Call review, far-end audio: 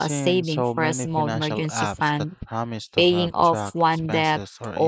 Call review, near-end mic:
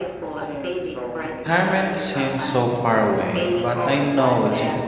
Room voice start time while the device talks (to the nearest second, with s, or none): 1 s